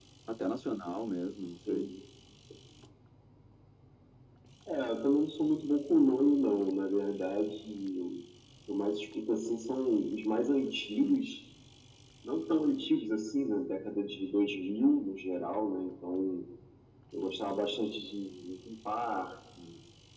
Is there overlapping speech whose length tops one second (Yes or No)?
No